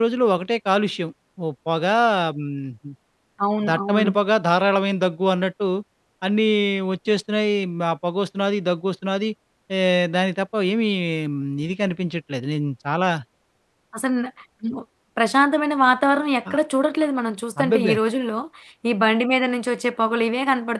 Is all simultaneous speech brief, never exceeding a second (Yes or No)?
Yes